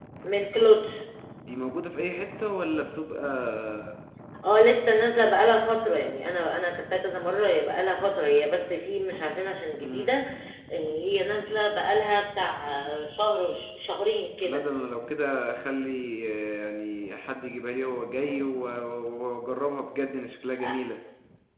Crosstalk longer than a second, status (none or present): none